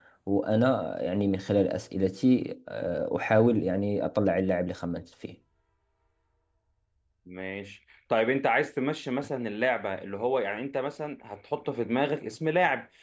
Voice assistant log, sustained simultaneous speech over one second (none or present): none